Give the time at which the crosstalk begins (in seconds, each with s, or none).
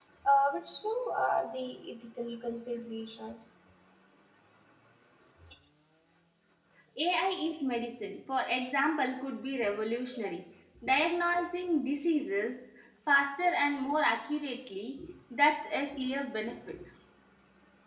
none